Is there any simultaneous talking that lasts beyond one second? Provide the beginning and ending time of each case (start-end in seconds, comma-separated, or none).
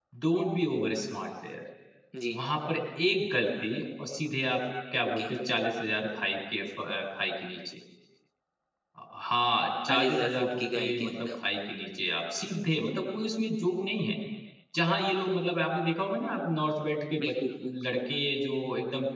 9.9-11.3